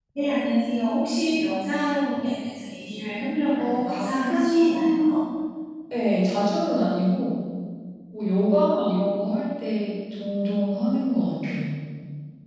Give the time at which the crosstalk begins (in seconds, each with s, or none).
3.6 s